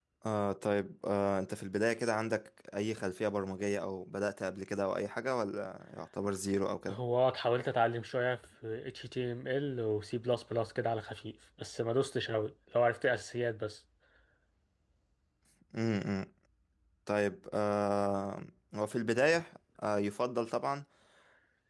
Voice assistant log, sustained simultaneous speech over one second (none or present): none